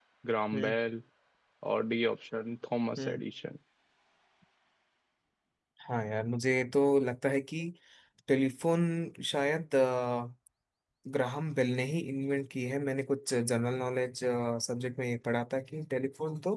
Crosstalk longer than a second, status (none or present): none